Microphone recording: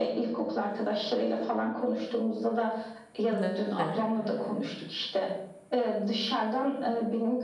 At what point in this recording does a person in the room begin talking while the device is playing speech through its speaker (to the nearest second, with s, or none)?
3 s